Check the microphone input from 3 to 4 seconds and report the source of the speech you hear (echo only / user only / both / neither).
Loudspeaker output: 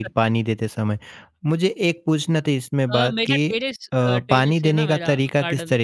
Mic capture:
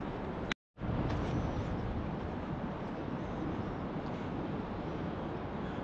neither